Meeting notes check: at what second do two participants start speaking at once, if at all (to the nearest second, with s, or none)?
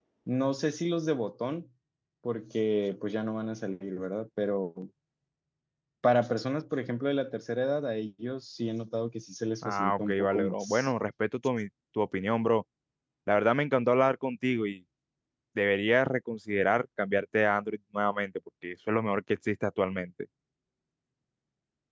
10 s